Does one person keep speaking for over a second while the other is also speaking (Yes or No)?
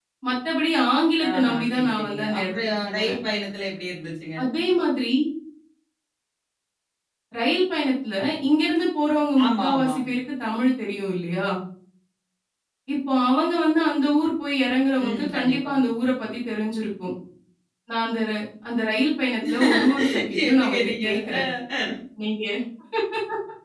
Yes